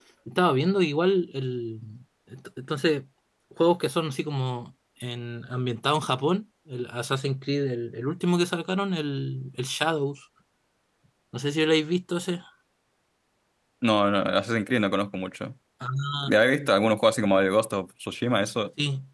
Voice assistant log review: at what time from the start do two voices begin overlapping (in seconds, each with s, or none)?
none